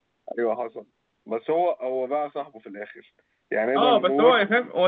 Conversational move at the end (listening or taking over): taking over